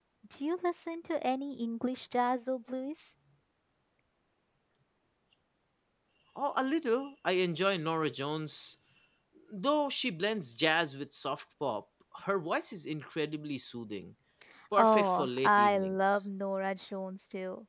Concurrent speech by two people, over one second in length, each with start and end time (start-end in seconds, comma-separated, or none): 14.8-16.2